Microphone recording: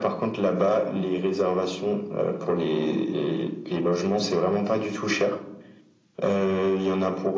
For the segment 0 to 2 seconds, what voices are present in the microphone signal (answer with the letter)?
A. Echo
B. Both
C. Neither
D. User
A